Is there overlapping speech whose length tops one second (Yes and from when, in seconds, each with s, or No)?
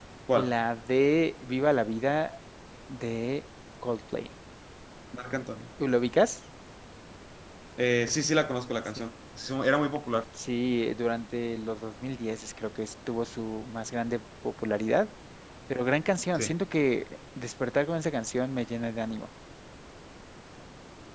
No